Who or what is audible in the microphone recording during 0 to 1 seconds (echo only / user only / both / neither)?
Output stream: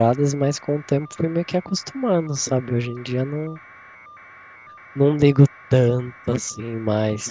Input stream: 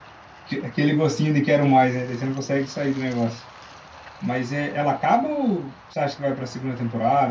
user only